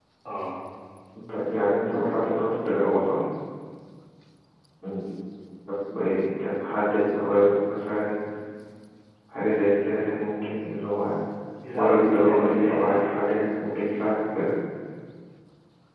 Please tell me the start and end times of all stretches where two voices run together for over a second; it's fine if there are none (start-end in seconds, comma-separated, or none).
11.7-13.0